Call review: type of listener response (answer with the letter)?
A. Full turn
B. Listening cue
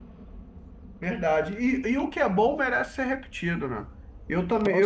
B